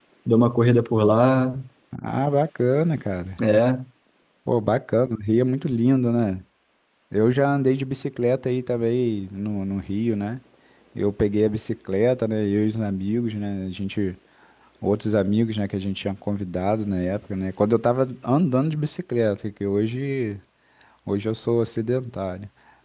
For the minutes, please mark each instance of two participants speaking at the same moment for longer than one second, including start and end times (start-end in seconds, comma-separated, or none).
none